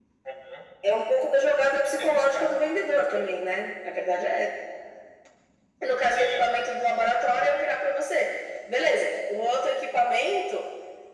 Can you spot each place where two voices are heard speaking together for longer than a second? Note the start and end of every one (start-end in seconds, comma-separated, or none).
2.0-3.3